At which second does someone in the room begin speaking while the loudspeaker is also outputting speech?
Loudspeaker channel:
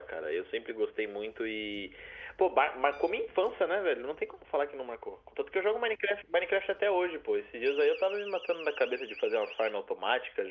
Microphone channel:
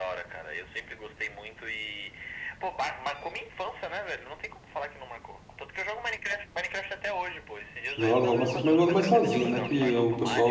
8.0 s

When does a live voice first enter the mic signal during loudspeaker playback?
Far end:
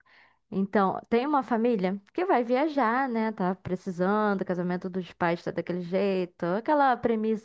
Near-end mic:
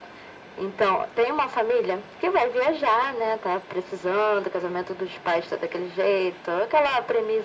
none

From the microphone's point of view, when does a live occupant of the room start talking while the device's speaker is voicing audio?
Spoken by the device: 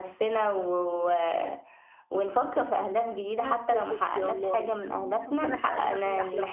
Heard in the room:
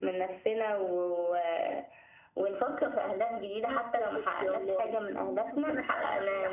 none

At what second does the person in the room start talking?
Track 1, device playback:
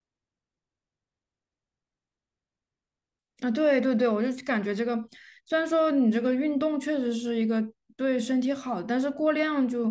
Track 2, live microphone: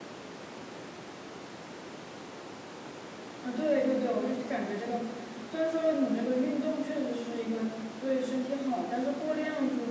none

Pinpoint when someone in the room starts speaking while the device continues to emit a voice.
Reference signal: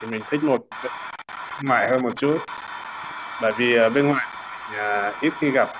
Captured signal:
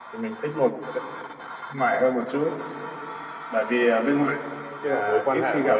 4.8 s

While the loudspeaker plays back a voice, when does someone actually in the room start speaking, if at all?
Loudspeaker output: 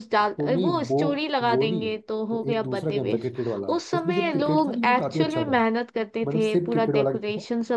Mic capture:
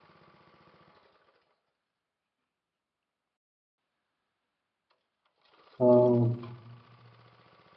5.8 s

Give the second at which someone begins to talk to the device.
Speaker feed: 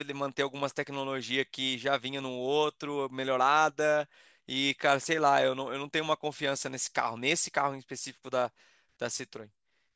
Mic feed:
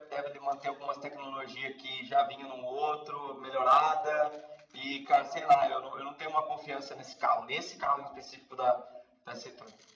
none

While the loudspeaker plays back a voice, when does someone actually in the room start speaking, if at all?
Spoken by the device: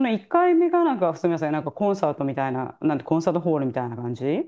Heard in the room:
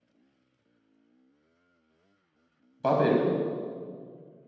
2.8 s

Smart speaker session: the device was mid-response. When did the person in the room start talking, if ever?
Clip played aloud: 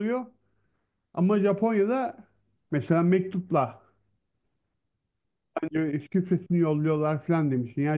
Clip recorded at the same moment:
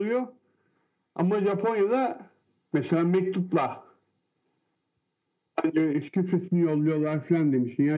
none

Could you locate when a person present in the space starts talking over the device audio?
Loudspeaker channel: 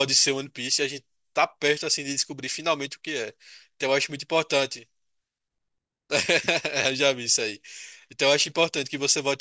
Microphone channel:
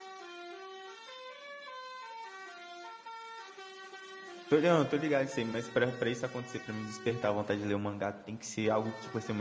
4.5 s

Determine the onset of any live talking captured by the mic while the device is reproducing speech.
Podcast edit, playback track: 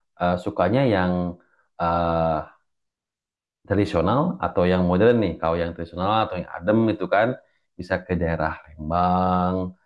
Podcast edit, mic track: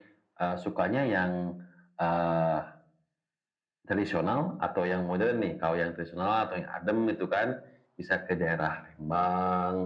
none

